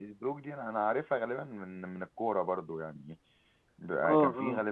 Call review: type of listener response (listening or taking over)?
listening